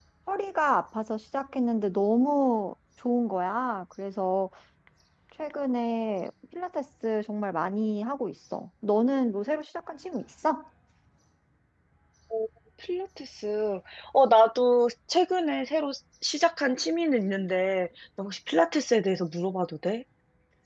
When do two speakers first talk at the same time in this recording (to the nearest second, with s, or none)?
none